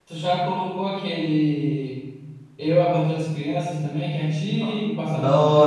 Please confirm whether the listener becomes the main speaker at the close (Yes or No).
Yes